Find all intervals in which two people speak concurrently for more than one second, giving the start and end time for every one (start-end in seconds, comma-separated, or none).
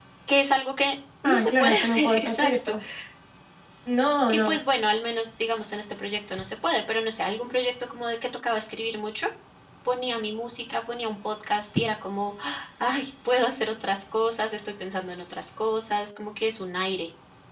1.2-2.7